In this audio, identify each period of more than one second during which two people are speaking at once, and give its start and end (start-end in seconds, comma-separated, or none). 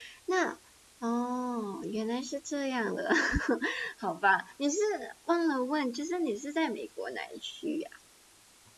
none